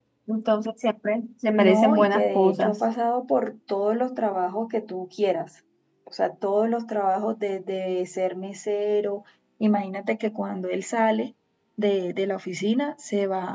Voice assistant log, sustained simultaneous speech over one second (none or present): present